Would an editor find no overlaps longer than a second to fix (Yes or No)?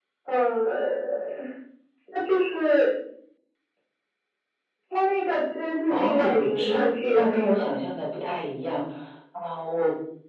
No